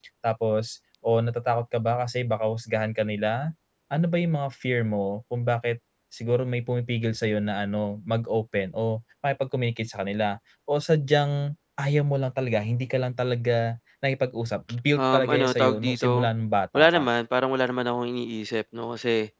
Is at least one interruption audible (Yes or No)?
Yes